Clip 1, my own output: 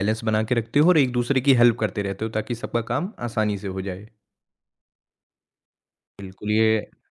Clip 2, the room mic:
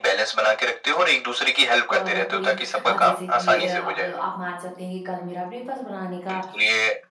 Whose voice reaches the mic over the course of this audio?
both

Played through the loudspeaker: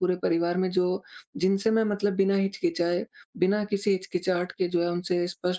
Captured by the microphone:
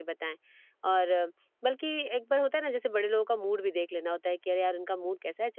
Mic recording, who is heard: user only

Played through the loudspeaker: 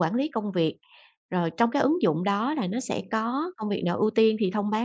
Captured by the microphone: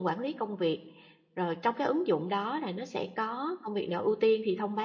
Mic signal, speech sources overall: echo only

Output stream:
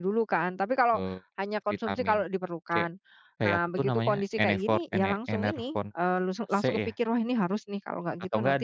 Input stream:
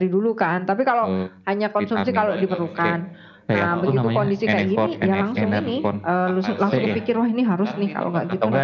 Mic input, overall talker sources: both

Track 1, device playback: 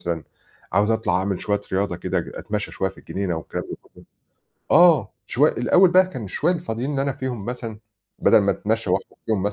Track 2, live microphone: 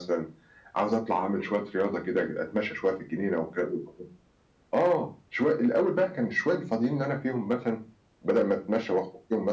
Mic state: echo only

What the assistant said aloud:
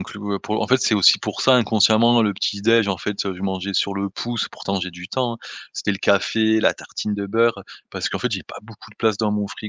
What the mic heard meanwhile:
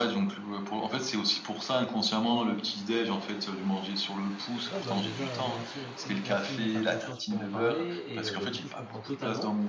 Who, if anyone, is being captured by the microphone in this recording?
both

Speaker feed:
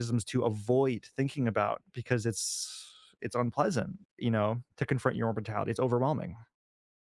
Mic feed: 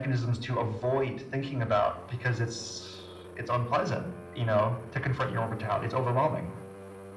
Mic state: echo only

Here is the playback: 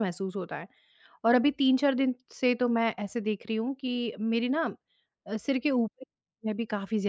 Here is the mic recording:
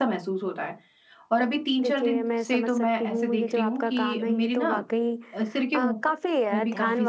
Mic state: both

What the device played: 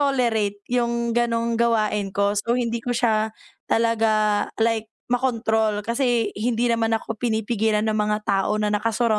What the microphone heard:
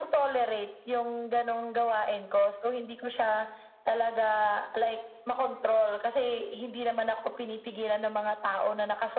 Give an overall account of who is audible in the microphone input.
echo only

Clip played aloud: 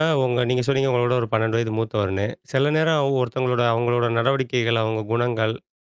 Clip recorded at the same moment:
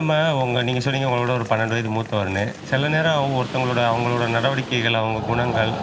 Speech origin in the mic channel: echo only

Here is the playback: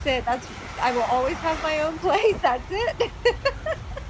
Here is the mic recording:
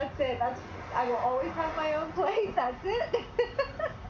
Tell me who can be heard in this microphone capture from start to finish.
echo only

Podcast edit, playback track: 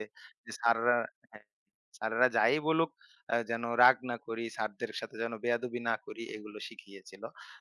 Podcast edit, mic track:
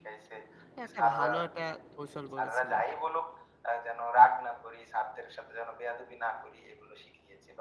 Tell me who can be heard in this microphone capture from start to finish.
both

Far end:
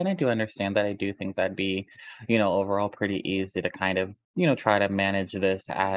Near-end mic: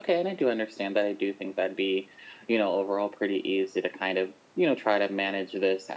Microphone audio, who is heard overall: echo only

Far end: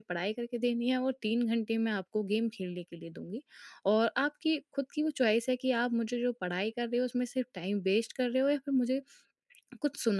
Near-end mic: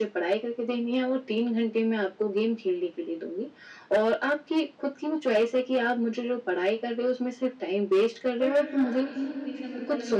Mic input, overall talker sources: both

